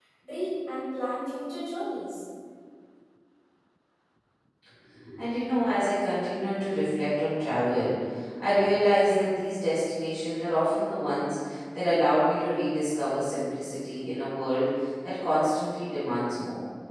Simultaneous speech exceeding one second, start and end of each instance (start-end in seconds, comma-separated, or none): none